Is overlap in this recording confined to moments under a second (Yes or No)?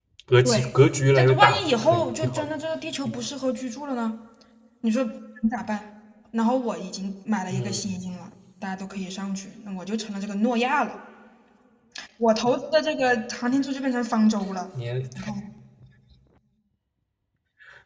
No